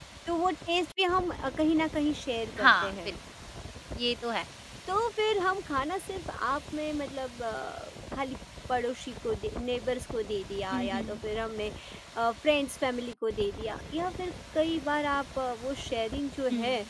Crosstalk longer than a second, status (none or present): none